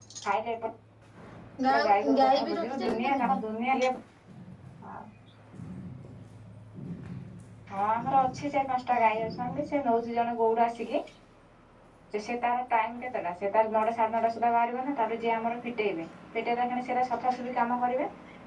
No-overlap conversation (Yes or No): No